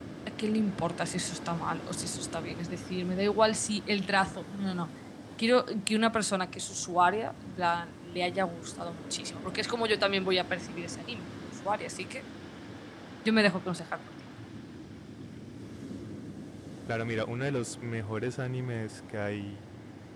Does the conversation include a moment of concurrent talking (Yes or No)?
No